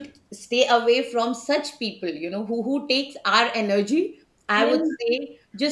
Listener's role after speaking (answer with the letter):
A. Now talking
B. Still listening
B